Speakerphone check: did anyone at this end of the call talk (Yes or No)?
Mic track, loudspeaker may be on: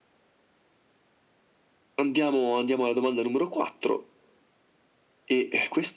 No